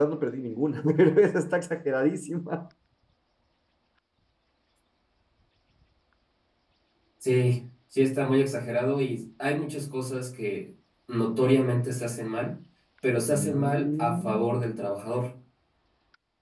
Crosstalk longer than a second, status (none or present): present